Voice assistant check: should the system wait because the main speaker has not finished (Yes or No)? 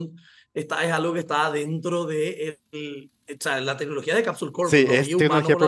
No